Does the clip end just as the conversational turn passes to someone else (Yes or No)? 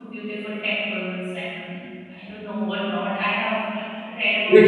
Yes